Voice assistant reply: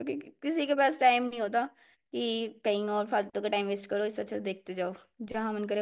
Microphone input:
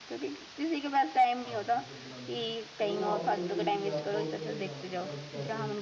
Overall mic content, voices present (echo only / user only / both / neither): both